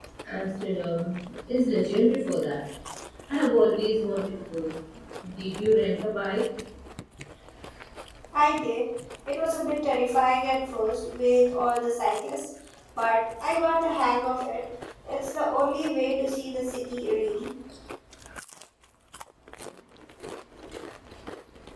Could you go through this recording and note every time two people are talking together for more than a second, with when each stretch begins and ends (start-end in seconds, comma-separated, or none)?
none